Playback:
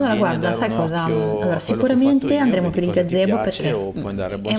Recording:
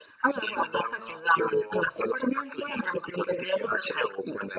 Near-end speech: none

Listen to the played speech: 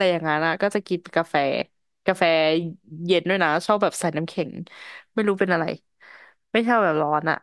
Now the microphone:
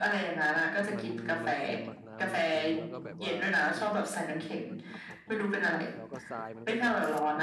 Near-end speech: present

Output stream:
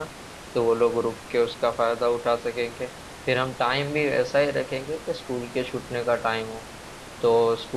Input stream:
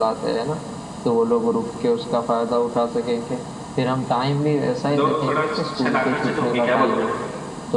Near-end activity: present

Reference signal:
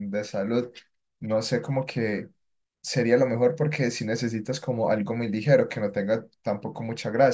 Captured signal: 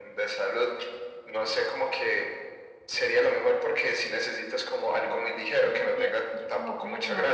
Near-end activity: present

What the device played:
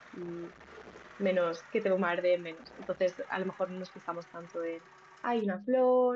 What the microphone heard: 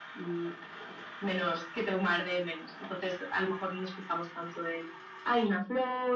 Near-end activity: none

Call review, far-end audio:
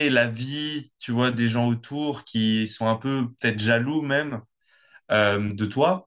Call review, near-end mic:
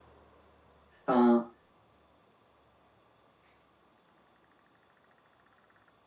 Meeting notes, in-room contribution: present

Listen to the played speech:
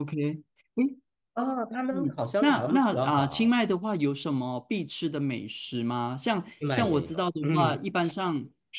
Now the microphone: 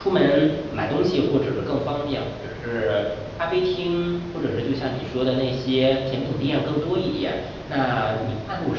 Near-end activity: present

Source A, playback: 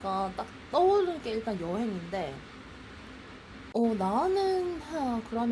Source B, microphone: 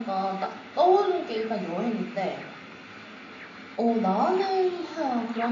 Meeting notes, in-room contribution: none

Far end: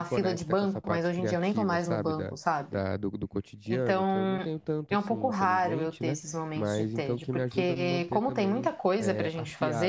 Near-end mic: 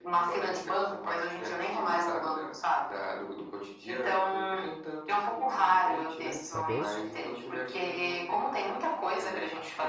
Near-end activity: present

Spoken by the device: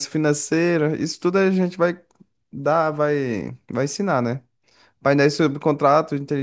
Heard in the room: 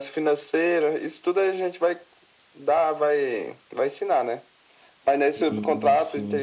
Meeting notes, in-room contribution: present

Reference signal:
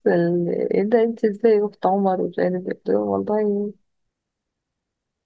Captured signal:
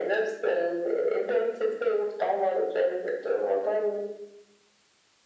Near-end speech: none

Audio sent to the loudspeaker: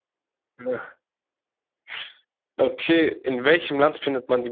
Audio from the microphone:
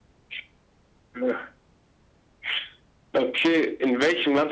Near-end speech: none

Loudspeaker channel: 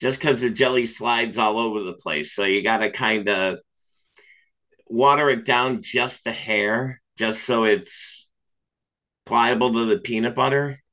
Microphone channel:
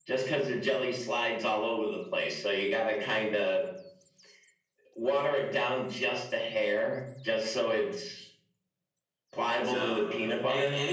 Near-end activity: present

